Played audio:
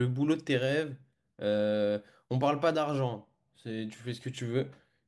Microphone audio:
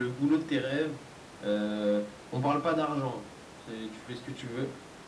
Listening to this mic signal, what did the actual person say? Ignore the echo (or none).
none